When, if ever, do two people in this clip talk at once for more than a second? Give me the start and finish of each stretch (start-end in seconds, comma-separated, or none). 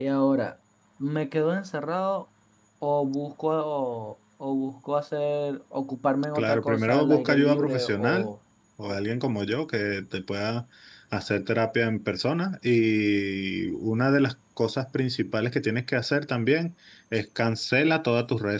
6.3-8.3